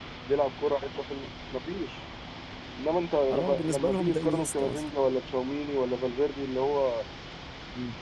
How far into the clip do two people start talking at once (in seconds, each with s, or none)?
3.3 s